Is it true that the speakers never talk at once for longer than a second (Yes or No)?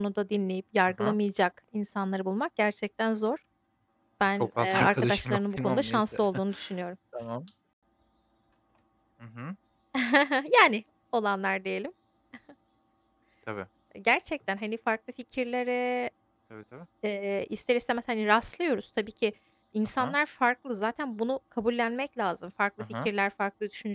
No